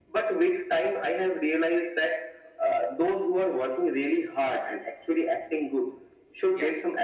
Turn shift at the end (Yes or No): No